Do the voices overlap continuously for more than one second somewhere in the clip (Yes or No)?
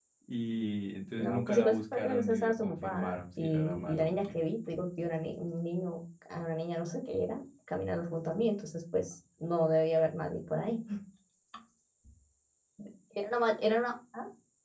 Yes